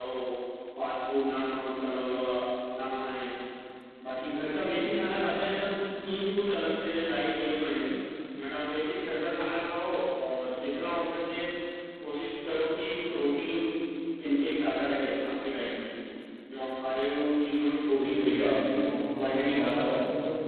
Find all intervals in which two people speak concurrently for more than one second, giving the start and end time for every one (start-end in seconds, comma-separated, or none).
17.9-20.0